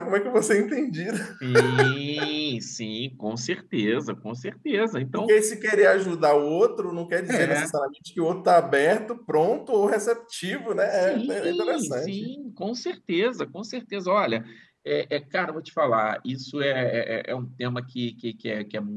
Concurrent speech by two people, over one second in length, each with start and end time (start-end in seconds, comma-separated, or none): 10.9-12.3